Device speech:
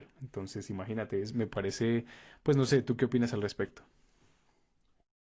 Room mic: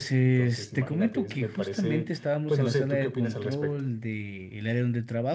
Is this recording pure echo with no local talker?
No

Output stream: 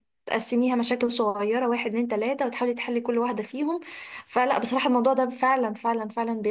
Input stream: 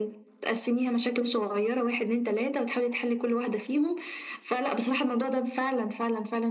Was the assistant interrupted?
No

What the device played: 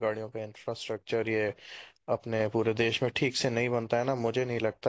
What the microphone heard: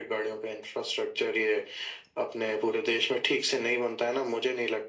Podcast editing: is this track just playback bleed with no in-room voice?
Yes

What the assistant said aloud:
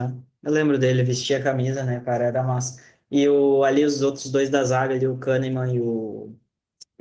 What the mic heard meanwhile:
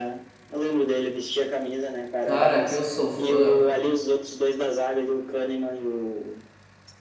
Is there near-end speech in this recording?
Yes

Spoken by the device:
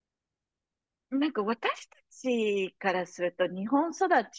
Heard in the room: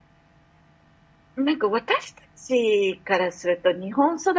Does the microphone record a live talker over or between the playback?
No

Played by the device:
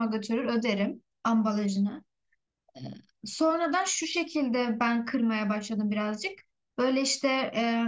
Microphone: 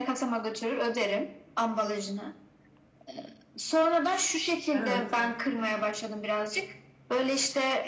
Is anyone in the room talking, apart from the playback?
Yes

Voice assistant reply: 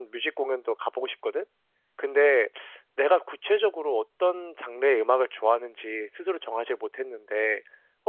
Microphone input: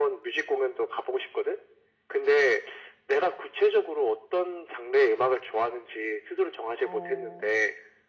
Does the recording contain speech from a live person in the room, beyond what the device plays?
Yes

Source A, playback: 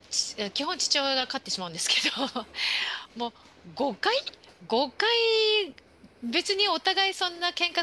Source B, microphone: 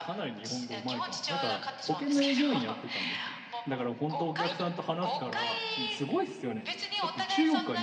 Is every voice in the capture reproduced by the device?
No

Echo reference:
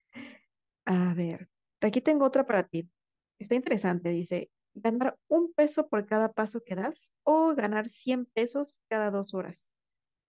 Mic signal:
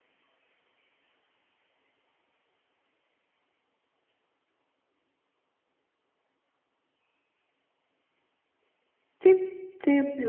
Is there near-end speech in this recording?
Yes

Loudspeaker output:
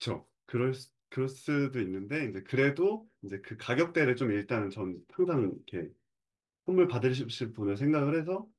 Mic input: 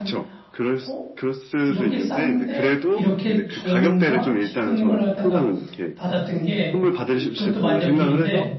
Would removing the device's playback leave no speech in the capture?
No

